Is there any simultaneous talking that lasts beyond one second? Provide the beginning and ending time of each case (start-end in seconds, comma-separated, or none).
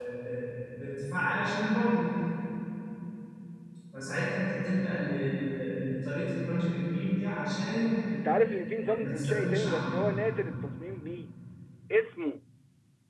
8.4-10.0